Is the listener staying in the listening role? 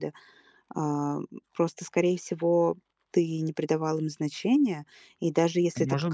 Yes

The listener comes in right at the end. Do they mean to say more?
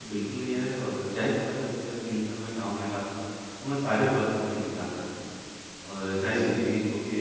No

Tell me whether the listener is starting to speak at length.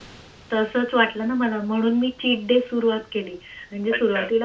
No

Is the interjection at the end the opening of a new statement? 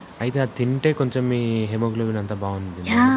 Yes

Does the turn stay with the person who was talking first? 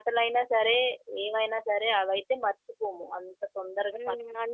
No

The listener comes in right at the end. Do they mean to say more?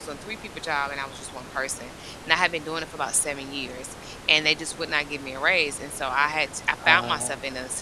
No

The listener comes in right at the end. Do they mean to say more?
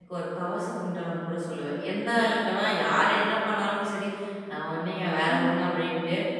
No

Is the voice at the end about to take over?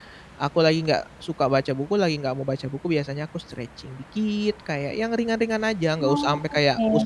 No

